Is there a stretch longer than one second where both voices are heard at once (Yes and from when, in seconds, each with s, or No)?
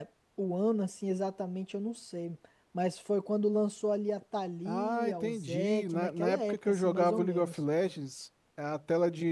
Yes, from 4.6 s